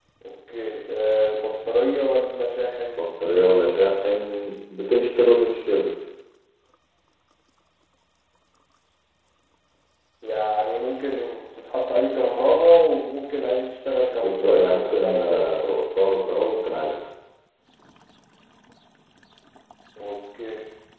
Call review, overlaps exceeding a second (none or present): present